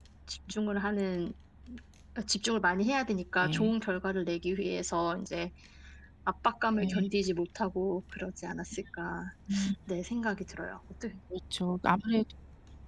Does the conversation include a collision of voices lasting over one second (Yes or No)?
No